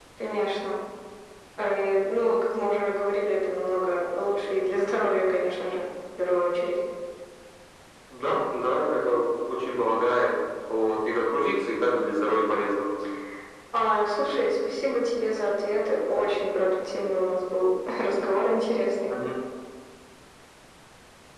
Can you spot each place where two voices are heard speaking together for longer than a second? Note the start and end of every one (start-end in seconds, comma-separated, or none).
none